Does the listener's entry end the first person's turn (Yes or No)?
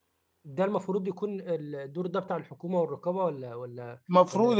Yes